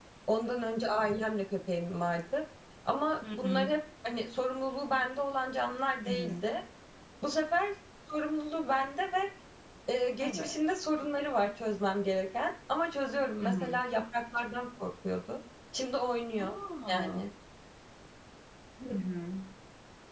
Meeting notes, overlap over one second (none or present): none